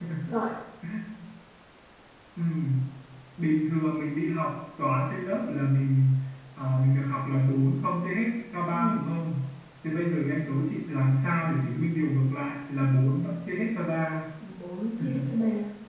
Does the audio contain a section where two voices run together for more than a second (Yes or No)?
No